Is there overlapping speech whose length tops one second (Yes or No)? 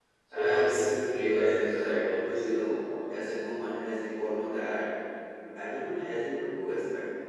Yes